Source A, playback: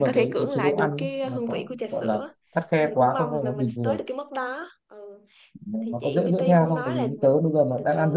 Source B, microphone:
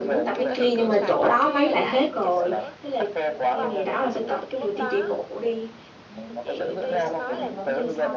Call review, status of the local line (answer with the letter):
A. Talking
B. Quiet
A